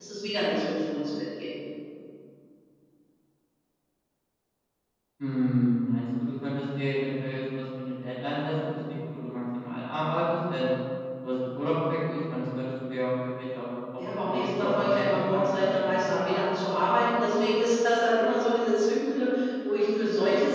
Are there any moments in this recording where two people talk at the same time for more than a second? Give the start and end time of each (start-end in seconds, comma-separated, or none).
14.1-16.4